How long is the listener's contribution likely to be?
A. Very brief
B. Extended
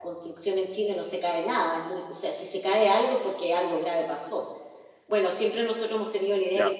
A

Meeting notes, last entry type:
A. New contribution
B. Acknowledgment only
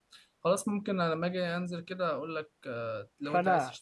A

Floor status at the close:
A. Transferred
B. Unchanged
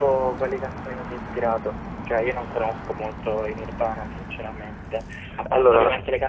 B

